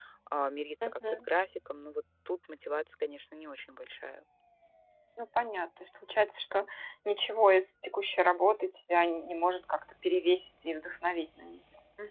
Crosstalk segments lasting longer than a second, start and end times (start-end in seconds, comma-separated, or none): none